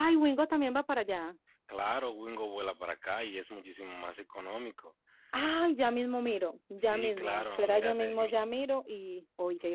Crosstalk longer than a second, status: present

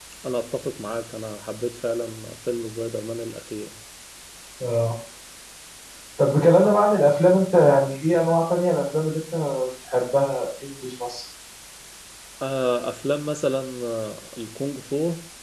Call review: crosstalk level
none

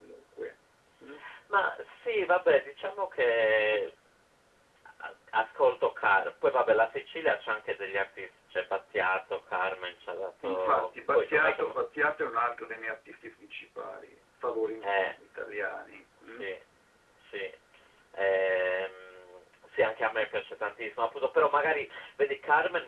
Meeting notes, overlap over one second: present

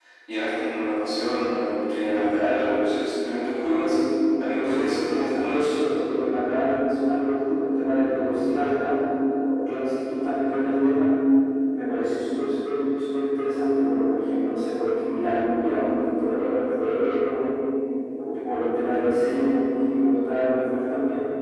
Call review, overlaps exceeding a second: present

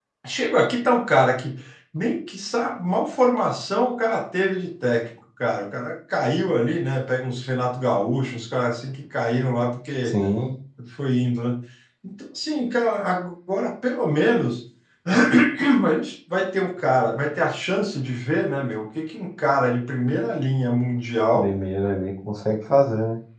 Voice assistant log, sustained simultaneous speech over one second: none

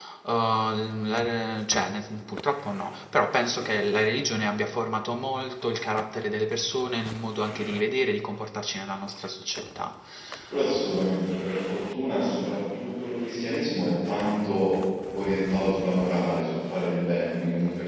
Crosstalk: none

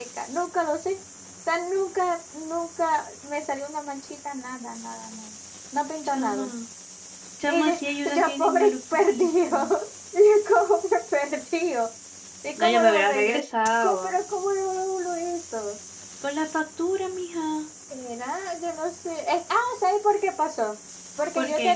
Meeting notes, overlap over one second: present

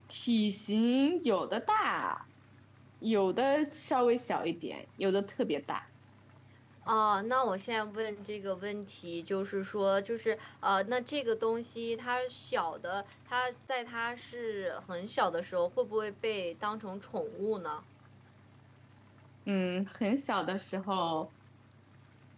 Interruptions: none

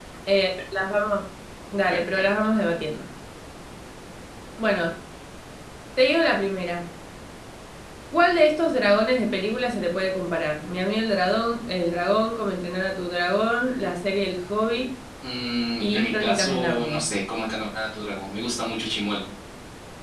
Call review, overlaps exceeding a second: present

